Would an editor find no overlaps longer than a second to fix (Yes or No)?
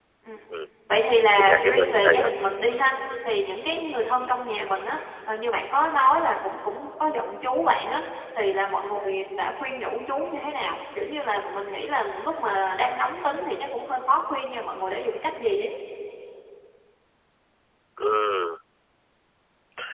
No